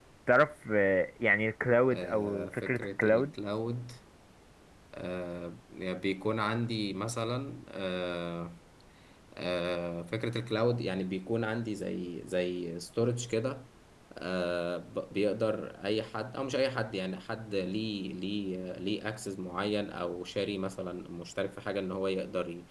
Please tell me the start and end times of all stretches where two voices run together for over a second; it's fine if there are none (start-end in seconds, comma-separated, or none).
1.9-3.3